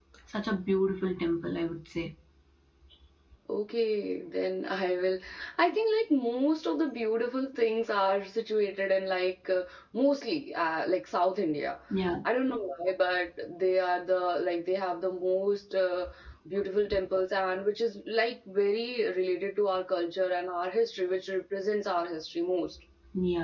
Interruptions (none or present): none